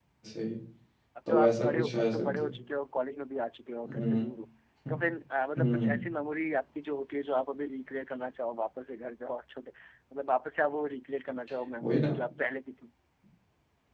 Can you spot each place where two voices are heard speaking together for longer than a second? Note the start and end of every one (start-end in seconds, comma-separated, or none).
1.3-2.5